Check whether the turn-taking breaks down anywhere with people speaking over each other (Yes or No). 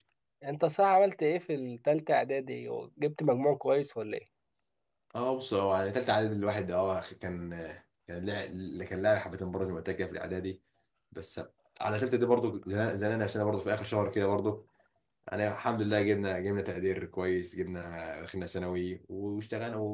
No